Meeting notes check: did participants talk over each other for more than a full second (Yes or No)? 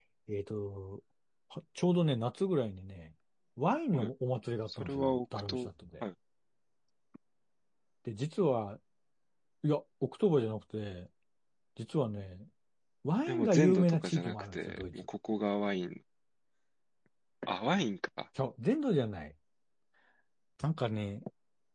Yes